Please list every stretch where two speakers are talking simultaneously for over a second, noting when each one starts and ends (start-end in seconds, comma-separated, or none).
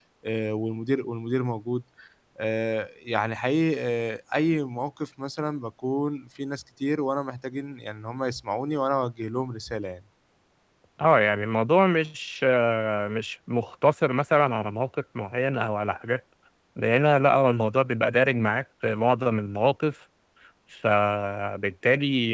none